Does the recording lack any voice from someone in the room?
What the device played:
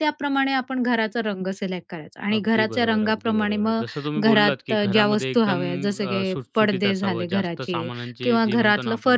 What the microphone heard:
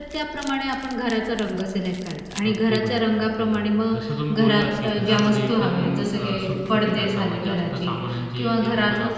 Yes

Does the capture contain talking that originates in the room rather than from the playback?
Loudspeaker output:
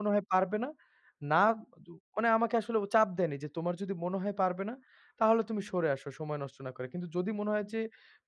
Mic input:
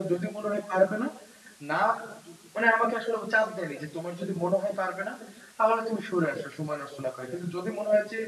No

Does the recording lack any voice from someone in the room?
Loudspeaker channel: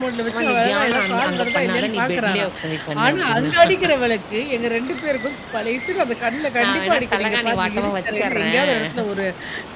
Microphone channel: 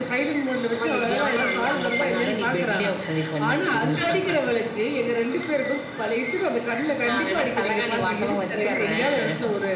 Yes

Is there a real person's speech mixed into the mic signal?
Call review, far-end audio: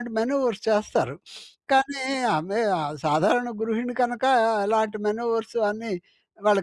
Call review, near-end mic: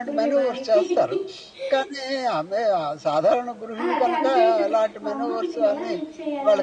Yes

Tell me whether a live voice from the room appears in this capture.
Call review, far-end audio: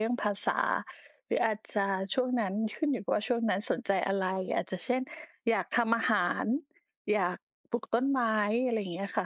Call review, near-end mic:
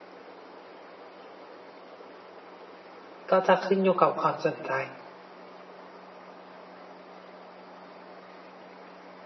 Yes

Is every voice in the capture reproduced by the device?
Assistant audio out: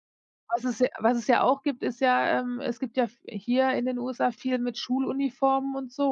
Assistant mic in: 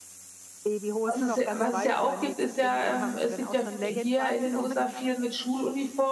No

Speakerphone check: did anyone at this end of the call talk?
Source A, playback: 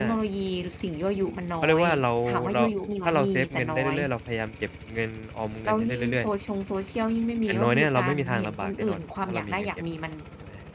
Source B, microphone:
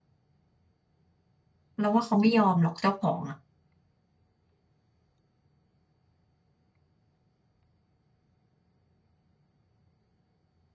Yes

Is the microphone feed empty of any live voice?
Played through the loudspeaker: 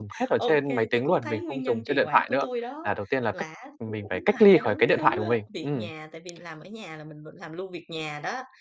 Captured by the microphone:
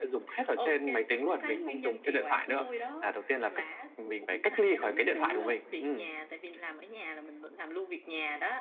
Yes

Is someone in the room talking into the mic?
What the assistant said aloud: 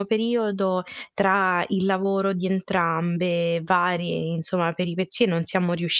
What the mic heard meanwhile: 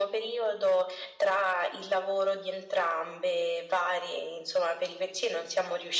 No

